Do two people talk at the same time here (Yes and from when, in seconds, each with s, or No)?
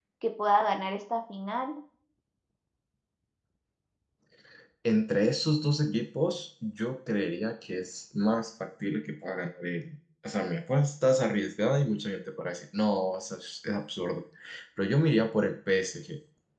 No